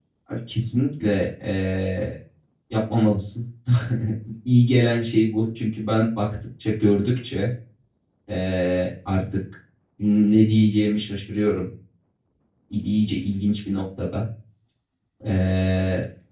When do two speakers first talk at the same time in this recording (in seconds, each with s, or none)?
none